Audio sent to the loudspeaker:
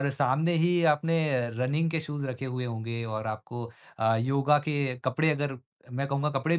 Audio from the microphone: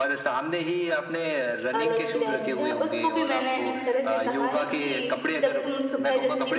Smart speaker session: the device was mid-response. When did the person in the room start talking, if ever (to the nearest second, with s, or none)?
2 s